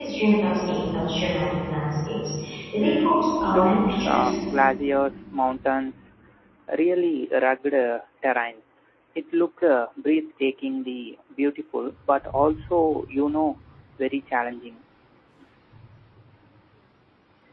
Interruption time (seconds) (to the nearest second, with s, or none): 3 s